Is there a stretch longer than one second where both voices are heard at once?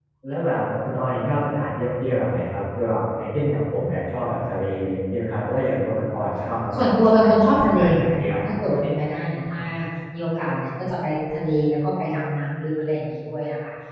Yes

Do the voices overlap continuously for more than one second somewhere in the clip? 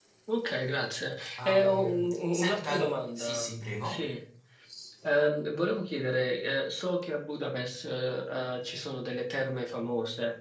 Yes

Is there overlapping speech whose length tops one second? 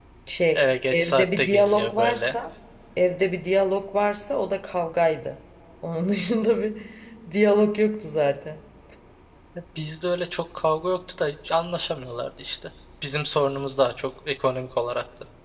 Yes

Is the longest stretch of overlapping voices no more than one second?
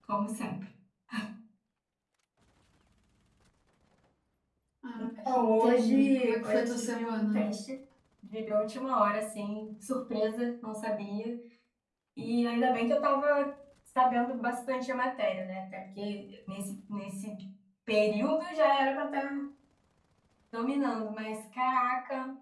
No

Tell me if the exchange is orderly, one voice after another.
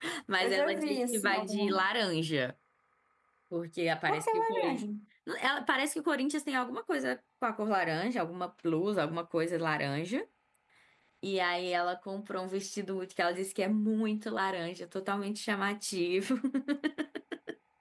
No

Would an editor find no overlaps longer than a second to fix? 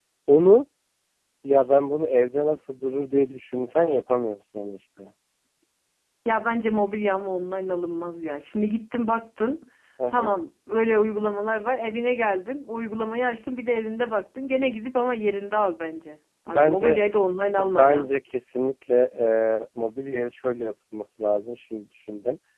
Yes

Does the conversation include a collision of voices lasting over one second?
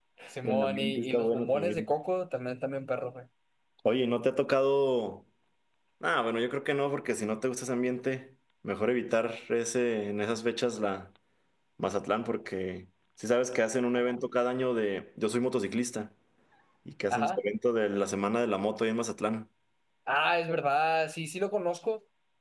Yes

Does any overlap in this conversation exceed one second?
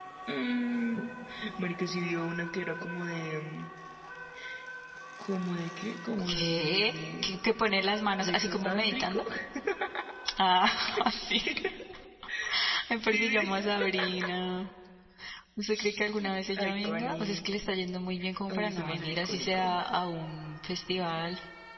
Yes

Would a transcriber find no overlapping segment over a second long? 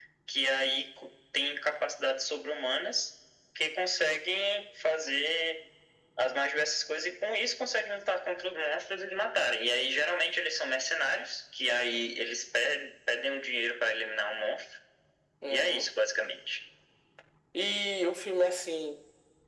Yes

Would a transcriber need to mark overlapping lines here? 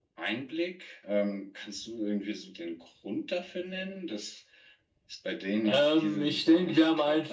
Yes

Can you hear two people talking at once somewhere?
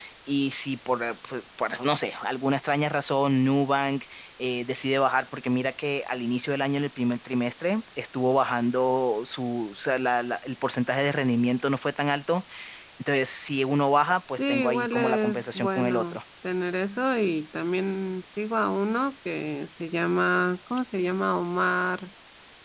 Yes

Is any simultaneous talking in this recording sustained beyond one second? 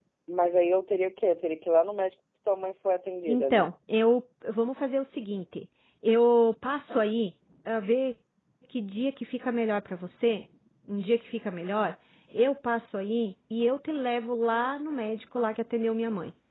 No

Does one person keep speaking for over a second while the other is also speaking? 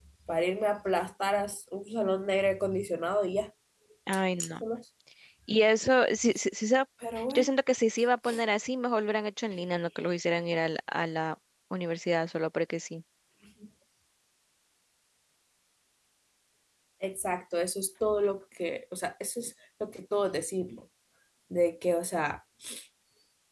No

